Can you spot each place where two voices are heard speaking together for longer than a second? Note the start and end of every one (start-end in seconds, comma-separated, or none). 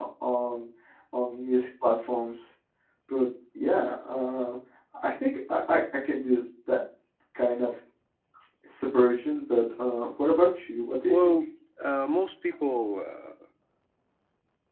none